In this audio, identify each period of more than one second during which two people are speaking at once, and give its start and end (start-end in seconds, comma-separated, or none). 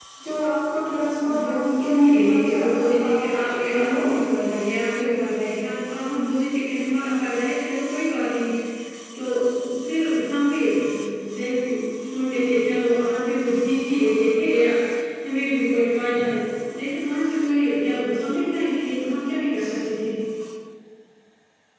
1.4-3.2